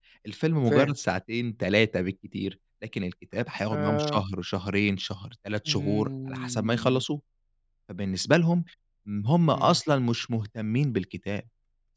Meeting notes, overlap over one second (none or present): present